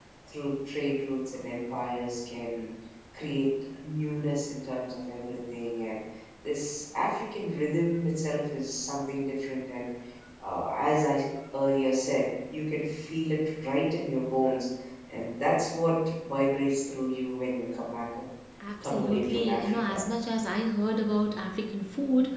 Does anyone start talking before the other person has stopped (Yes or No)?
Yes